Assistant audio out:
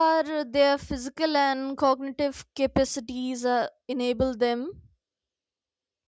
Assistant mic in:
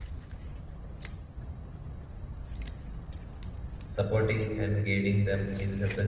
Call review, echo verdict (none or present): none